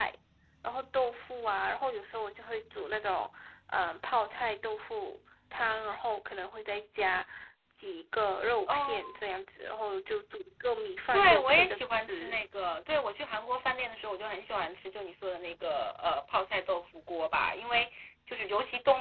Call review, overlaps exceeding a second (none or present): present